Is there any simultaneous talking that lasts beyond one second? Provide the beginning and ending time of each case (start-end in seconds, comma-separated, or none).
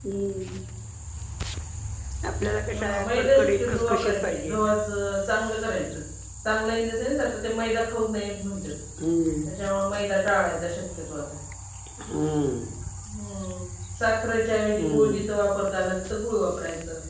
2.7-4.6